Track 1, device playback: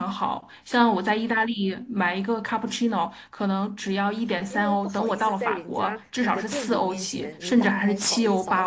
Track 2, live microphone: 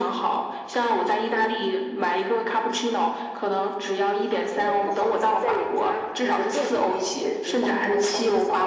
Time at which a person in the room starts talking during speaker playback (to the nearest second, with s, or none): none